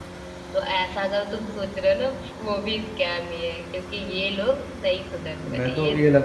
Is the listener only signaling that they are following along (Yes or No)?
No